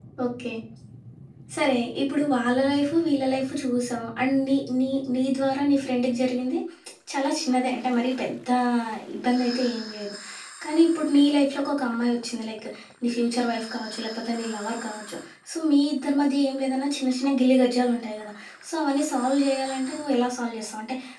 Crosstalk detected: No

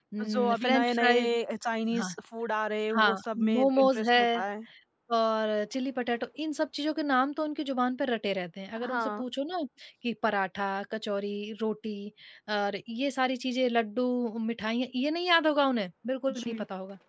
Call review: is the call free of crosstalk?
No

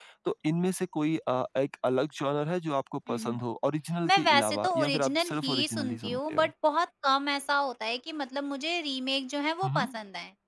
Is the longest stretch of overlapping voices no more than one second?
No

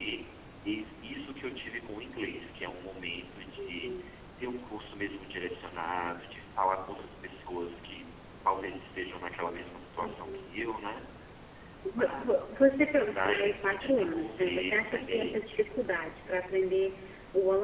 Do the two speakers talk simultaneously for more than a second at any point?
Yes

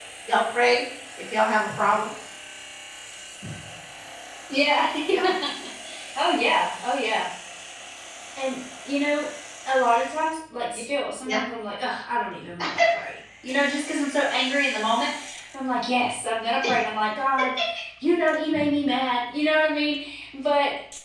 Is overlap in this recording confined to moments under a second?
Yes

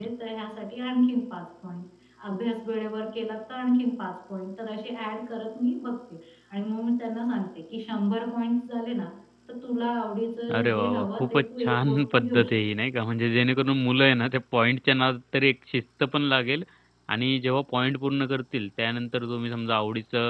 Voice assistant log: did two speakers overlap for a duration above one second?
Yes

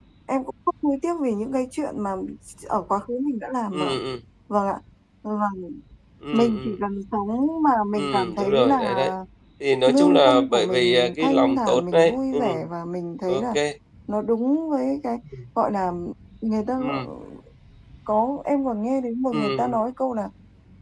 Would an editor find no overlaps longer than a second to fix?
No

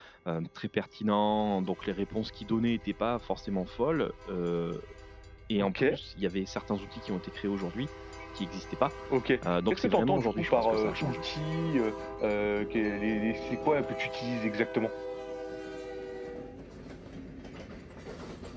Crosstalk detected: Yes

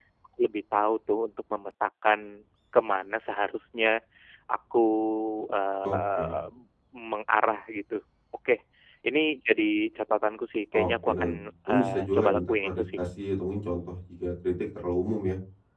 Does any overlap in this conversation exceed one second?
Yes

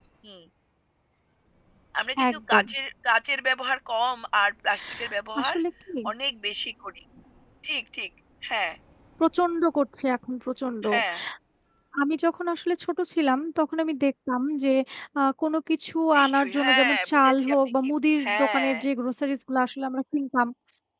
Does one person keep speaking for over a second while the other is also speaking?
Yes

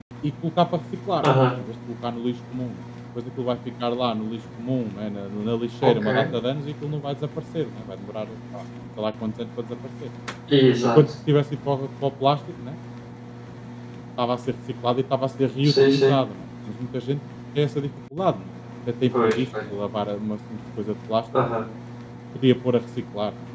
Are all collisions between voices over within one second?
Yes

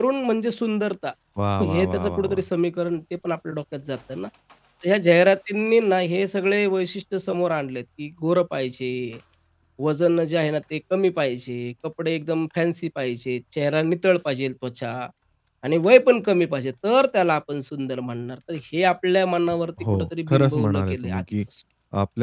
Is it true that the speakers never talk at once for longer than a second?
No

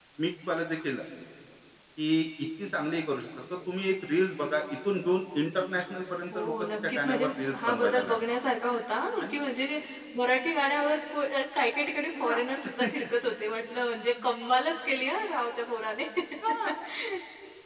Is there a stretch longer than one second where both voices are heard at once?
Yes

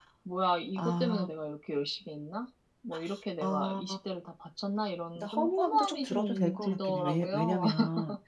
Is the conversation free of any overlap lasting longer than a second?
No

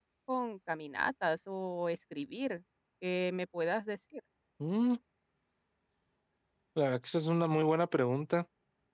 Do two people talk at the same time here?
No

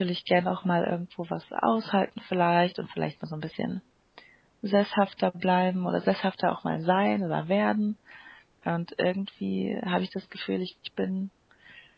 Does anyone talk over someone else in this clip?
No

